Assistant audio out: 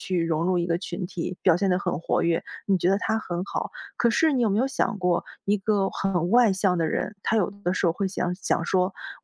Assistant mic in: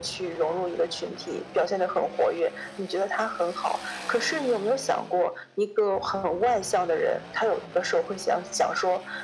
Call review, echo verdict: present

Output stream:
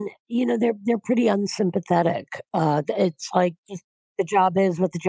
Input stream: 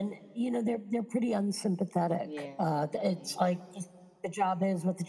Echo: present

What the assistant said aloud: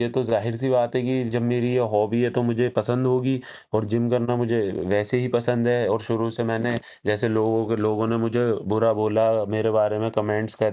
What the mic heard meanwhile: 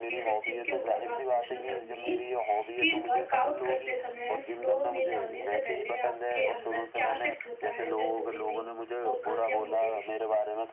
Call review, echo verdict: present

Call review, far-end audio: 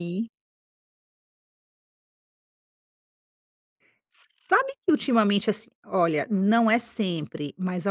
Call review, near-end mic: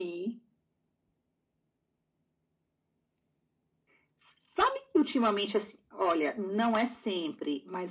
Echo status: present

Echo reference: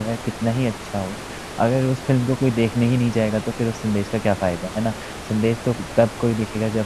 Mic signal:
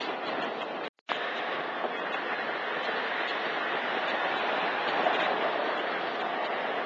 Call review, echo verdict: none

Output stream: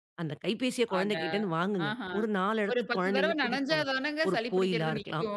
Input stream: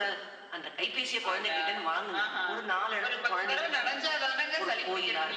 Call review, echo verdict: present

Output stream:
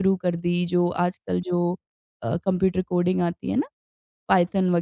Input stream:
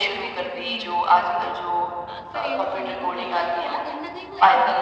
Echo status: present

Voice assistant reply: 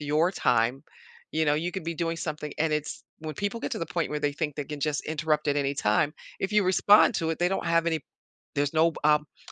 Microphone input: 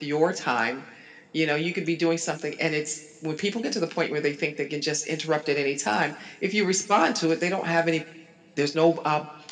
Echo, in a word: present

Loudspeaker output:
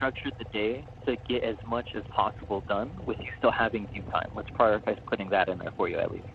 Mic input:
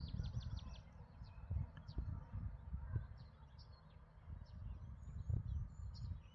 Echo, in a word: none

